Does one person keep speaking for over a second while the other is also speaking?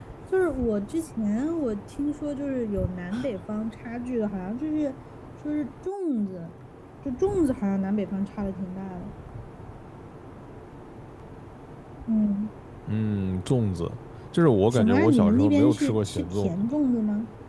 Yes, from 14.7 s

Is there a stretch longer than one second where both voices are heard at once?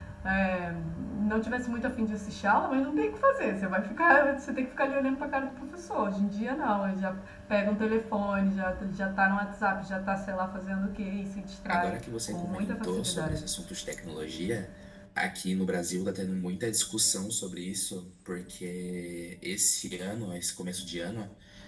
Yes, from 11.7 s

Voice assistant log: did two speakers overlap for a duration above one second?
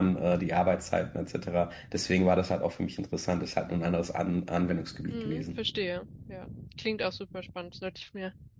No

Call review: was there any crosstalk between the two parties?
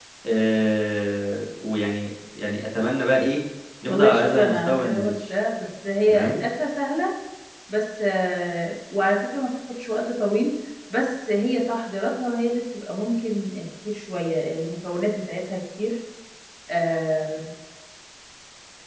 Yes, from 3.9 s

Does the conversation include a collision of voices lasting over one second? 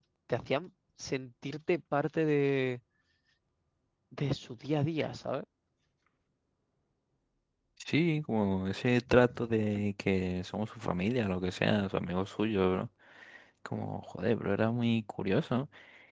No

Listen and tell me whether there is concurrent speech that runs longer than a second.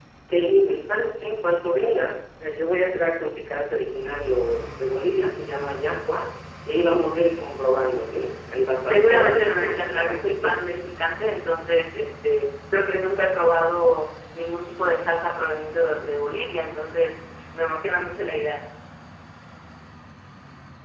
Yes, from 8.9 s

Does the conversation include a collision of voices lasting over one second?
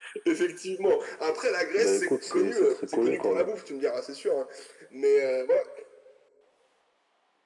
Yes, from 1.8 s

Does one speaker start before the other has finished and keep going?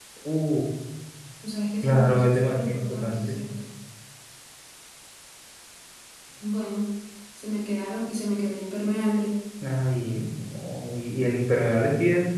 Yes, from 1.8 s

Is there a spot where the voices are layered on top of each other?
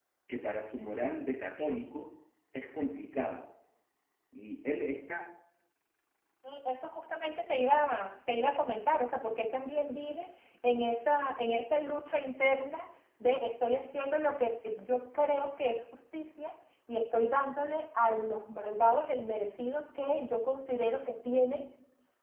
No

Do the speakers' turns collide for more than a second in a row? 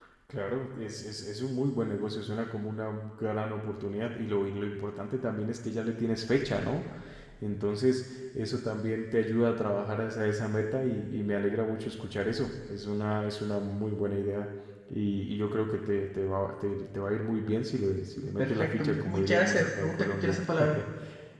Yes, from 18.4 s

